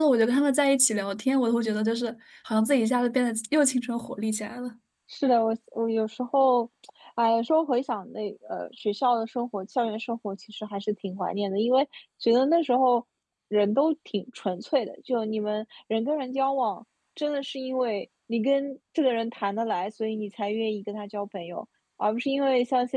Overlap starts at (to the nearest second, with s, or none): none